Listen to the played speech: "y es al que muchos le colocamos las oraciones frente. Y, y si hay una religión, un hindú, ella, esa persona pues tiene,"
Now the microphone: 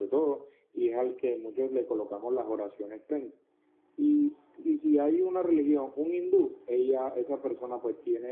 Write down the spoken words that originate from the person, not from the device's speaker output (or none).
none